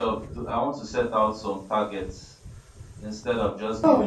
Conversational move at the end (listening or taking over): listening